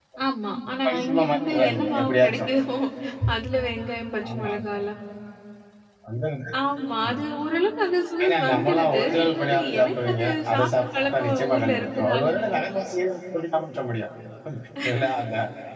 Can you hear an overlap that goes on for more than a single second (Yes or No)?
Yes